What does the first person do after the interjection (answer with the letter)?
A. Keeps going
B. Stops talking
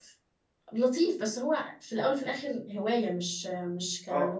B